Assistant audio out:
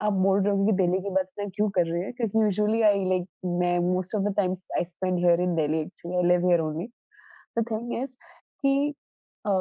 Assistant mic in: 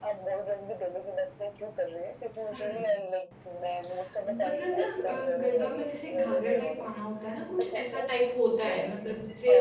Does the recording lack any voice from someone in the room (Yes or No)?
No